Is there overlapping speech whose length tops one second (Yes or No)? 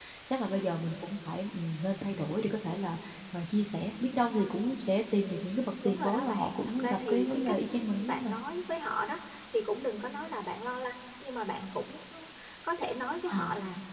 Yes